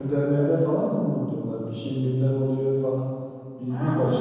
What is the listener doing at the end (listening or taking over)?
taking over